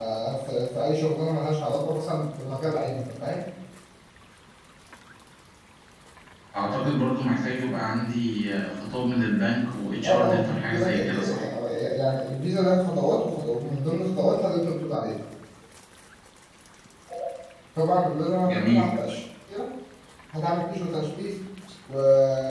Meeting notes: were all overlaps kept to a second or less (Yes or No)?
No